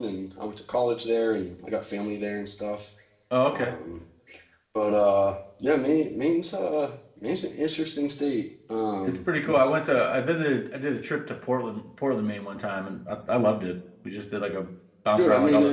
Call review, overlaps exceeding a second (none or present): none